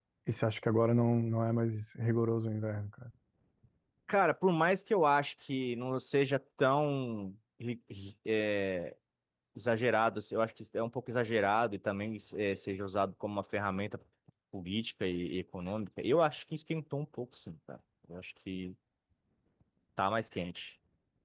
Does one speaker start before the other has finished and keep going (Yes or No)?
No